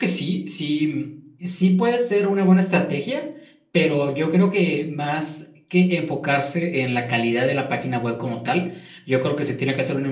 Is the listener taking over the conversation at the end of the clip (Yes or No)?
No